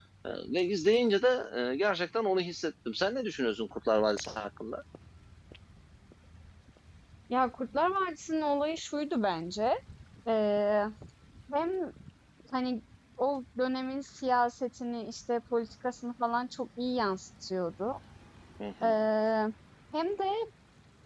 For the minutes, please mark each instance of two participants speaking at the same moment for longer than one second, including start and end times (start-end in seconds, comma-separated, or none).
none